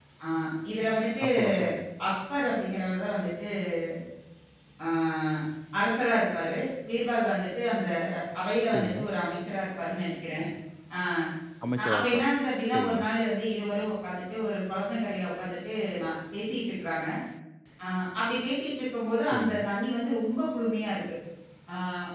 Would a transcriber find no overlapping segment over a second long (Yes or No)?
Yes